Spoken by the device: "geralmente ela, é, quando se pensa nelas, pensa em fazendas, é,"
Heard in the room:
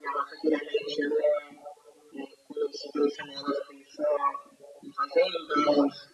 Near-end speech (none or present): none